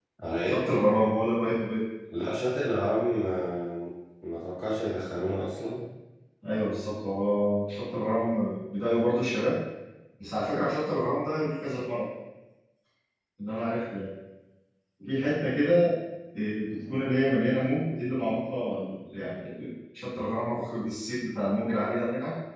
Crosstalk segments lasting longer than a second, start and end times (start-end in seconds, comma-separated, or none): none